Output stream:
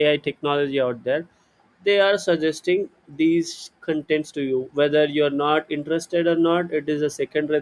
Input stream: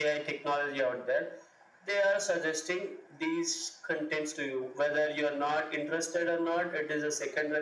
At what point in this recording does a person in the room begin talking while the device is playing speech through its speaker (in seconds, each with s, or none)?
none